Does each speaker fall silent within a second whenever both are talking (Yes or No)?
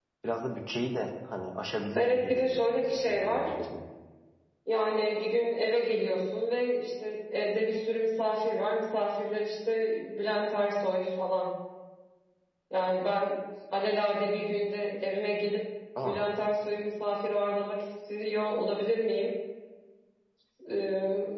No